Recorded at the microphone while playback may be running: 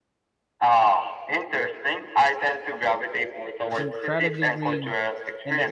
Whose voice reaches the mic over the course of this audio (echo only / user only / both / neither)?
both